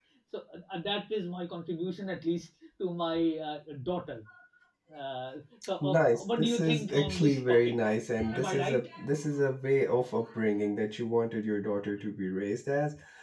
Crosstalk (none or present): present